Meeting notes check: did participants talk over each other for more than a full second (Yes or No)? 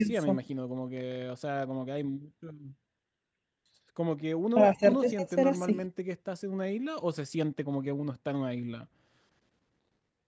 Yes